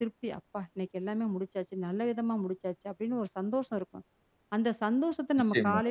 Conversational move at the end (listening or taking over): listening